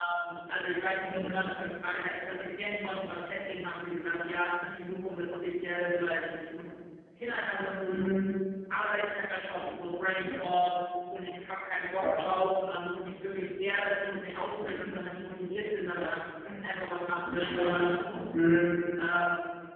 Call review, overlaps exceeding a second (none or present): none